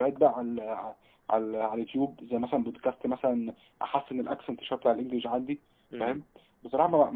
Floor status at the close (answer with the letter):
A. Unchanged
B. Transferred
A